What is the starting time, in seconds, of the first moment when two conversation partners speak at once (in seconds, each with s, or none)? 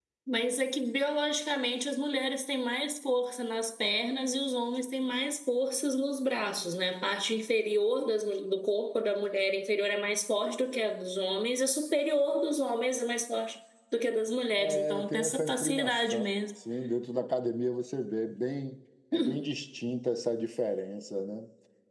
14.6 s